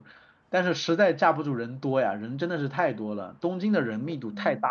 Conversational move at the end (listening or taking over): taking over